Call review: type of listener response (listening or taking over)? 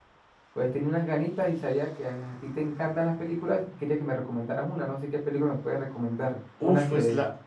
taking over